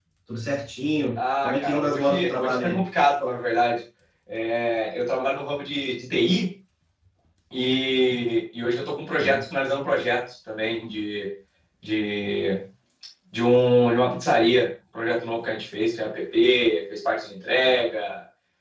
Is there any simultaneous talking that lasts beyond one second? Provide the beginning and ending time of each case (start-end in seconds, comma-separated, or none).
1.4-2.8